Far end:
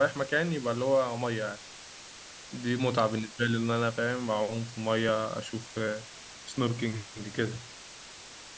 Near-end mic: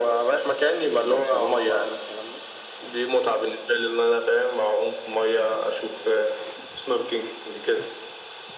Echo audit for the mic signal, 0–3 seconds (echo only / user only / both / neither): both